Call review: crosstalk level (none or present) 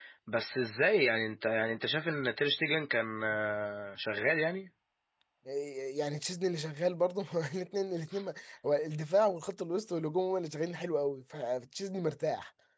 none